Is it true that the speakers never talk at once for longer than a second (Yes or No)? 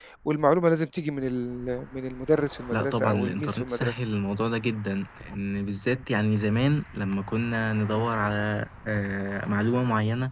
No